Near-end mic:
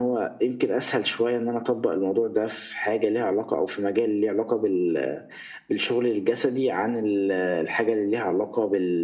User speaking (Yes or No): No